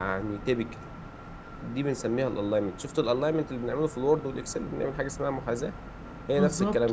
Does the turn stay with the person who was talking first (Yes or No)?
No